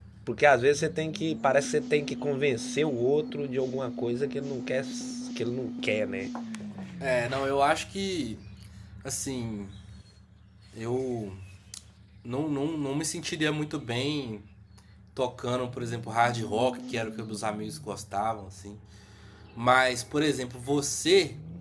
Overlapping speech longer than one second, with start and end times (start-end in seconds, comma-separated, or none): none